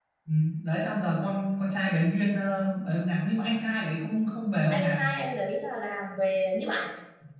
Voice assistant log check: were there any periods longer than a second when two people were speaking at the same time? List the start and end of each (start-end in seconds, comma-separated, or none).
none